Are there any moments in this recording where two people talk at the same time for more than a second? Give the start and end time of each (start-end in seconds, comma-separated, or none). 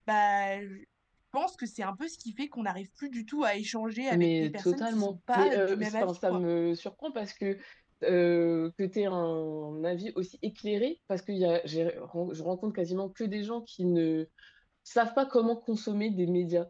4.1-6.4